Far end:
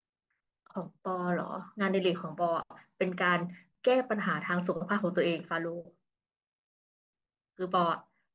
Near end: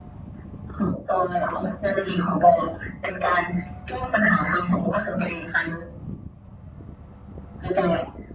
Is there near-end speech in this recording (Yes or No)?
No